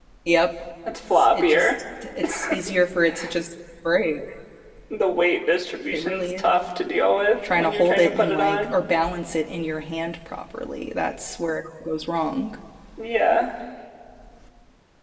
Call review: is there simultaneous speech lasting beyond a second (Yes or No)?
Yes